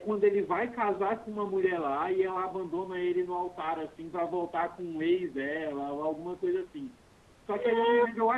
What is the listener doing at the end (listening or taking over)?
listening